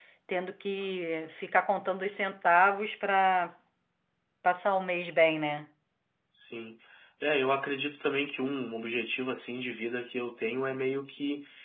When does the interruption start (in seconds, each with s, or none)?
none